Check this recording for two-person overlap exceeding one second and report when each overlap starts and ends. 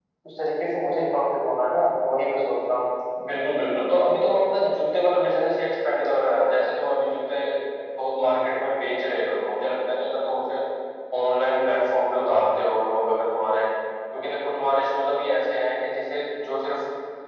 none

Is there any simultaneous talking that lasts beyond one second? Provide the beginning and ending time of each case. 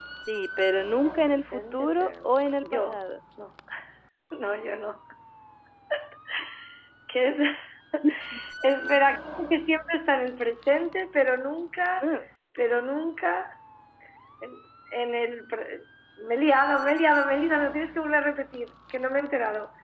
1.0-3.0

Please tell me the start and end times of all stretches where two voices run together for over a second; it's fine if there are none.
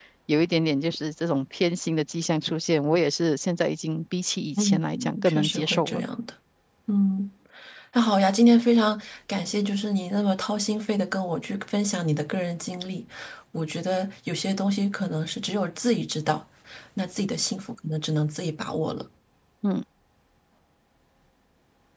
4.6-6.0

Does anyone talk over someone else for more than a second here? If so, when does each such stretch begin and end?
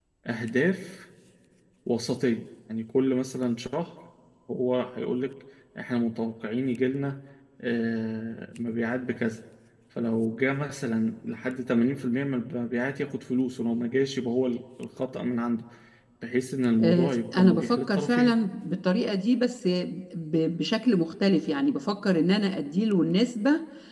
16.8-18.4

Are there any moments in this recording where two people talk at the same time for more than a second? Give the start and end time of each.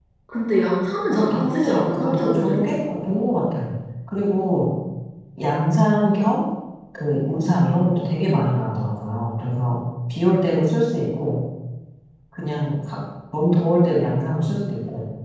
1.1-2.7

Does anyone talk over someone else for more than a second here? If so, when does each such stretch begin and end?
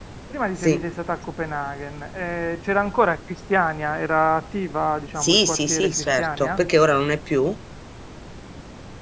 5.2-6.6

